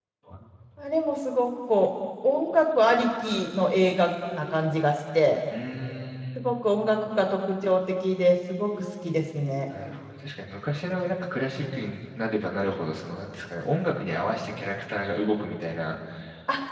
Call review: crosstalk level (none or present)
none